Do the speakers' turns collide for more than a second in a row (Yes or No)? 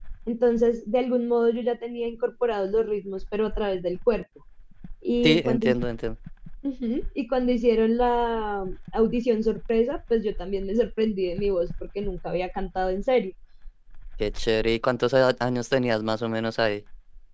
No